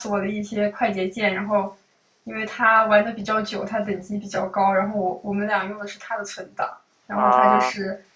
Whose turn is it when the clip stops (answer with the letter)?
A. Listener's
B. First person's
B